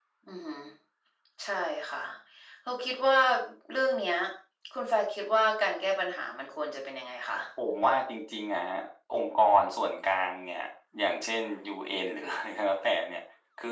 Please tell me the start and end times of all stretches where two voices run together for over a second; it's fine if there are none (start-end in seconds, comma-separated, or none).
none